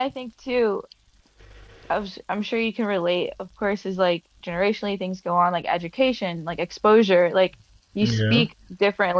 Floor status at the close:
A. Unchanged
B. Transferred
A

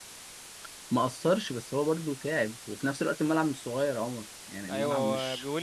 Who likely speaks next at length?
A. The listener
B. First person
A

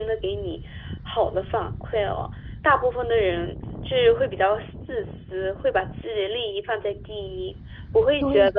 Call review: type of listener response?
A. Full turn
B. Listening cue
A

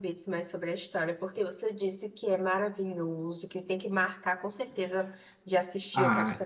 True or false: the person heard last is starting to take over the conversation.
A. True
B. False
A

